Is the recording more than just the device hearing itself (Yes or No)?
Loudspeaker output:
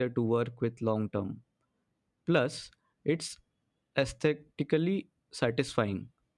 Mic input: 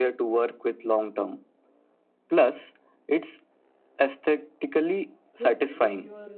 Yes